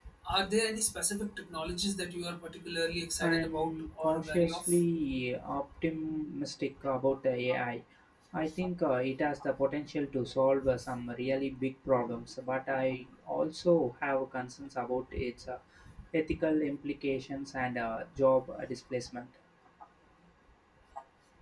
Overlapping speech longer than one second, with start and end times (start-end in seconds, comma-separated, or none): 3.2-4.8